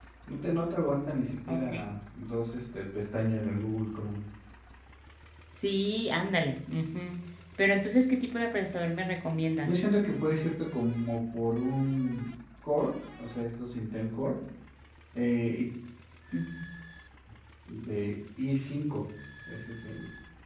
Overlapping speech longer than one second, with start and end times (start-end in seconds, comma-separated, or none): none